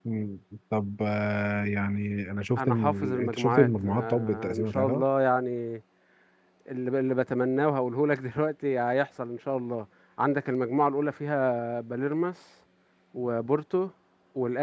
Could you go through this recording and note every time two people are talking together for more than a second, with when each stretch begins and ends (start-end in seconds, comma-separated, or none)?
2.6-5.0